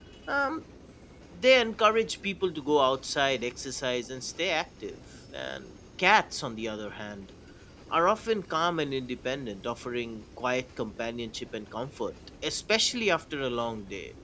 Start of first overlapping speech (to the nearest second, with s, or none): none